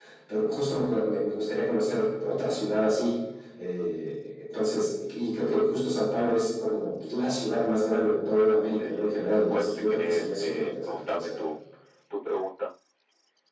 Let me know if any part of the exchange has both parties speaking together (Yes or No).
Yes